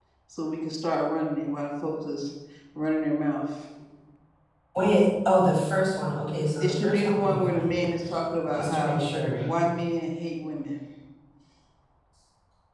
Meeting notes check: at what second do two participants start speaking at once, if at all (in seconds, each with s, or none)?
6.6 s